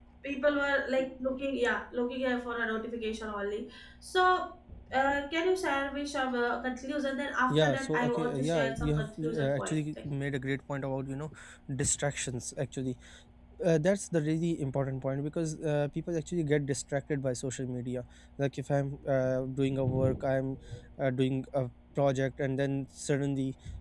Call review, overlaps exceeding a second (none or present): present